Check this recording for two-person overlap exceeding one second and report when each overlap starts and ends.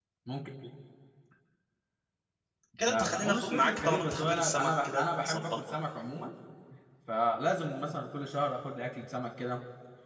2.9-5.6

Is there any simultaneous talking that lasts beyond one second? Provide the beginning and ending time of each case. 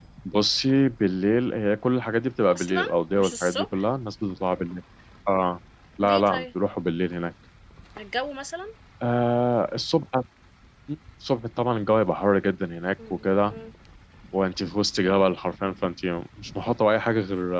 2.5-3.8

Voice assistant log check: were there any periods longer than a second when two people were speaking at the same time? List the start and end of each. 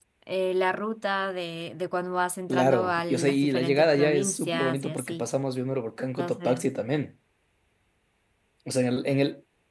2.5-5.2

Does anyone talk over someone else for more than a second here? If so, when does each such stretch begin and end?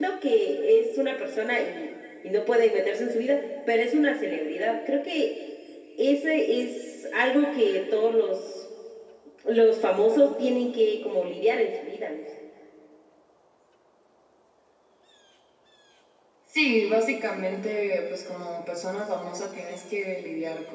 none

